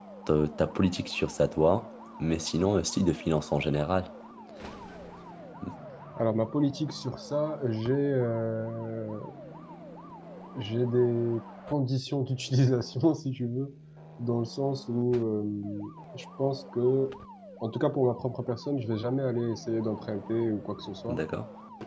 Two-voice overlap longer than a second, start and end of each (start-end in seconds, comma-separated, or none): none